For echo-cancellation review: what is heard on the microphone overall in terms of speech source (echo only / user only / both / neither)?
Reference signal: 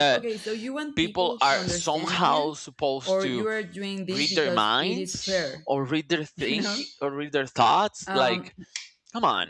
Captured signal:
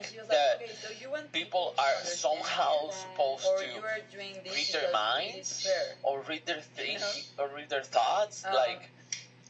both